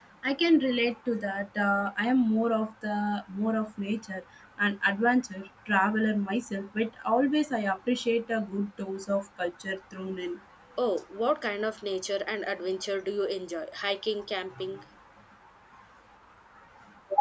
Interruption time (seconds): none

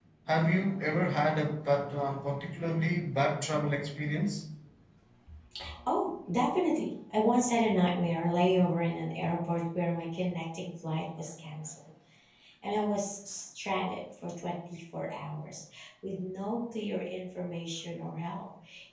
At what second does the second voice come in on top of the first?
none

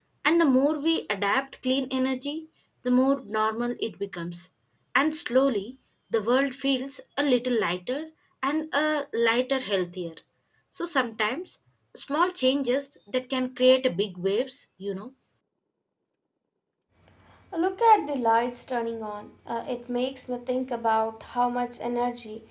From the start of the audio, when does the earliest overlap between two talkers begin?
none

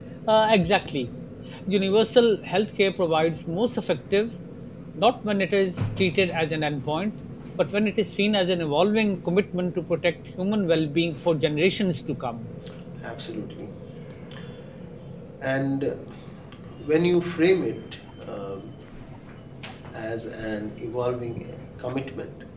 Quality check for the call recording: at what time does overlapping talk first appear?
none

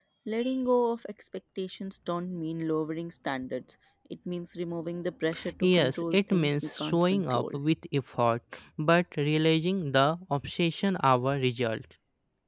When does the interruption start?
6 s

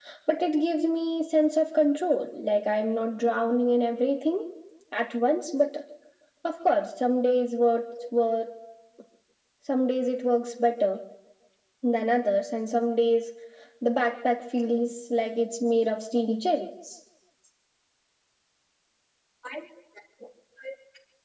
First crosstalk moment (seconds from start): none

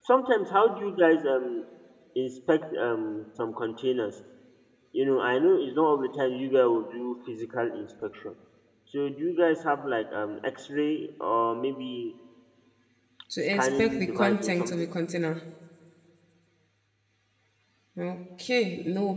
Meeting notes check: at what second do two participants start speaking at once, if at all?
14 s

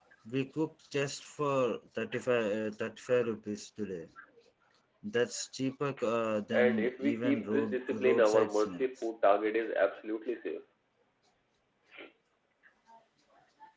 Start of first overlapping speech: 7 s

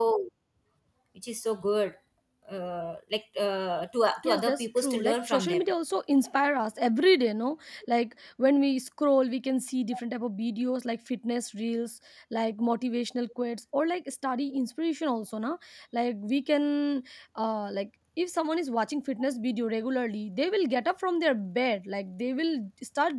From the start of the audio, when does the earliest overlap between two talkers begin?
4 s

